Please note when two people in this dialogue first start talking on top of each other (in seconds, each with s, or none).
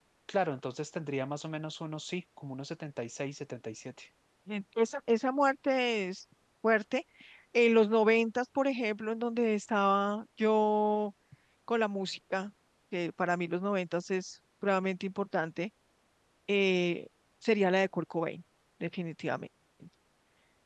none